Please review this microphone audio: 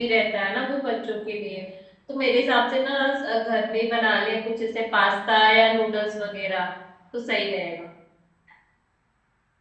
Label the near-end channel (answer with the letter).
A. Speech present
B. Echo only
A